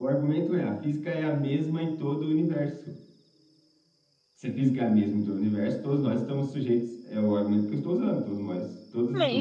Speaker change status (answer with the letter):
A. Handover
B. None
A